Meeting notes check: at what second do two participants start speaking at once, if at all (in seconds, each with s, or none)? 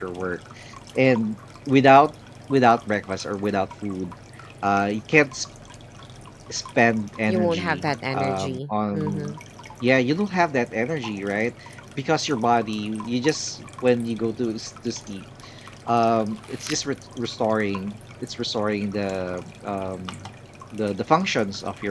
7.3 s